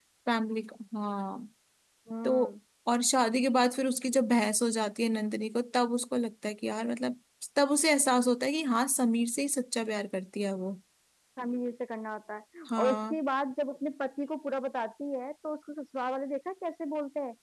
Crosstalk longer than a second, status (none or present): none